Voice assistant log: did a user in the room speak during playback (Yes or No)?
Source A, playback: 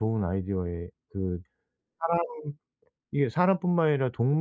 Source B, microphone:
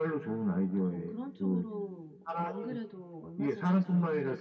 Yes